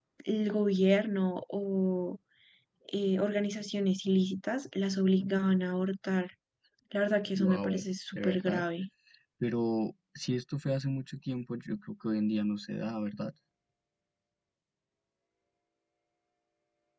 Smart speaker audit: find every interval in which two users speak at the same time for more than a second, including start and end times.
none

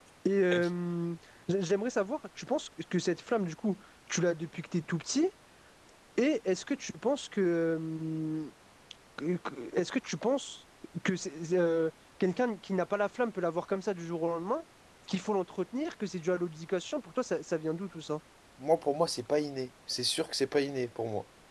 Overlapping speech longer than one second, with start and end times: none

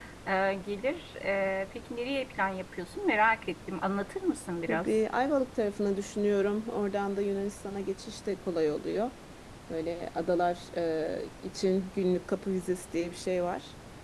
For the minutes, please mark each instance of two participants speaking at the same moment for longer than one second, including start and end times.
none

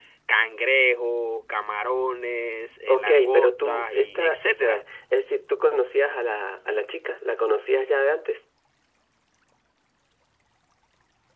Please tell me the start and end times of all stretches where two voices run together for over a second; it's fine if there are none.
2.9-4.8

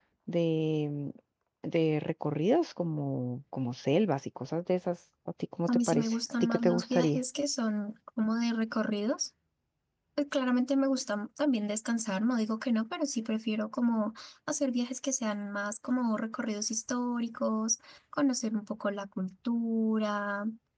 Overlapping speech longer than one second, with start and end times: 5.7-7.2

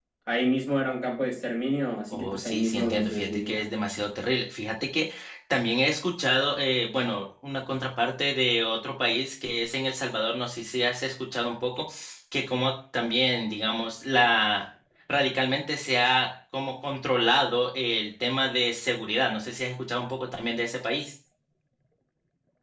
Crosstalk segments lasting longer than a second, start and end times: 2.1-3.7

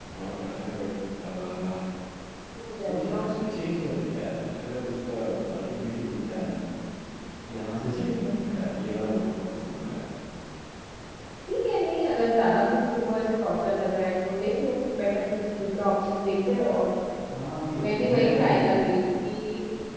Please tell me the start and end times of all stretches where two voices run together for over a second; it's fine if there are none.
17.8-19.0

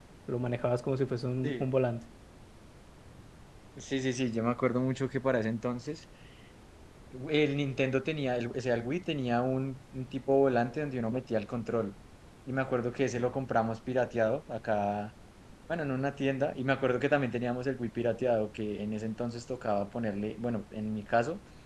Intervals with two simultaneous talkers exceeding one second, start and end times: none

